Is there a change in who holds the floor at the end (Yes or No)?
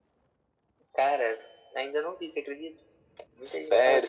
Yes